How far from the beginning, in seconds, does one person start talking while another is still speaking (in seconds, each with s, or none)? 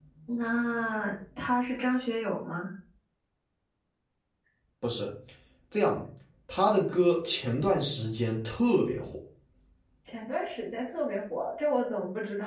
none